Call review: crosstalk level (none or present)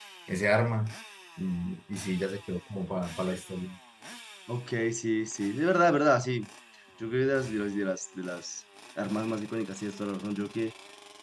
none